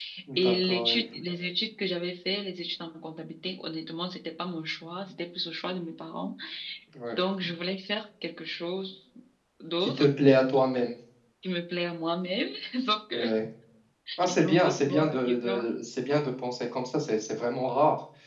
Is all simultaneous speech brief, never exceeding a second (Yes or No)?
No